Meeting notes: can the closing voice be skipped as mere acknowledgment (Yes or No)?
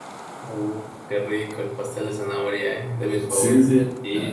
No